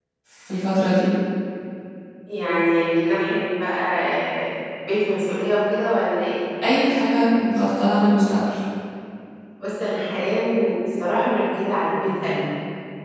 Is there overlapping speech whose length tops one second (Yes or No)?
No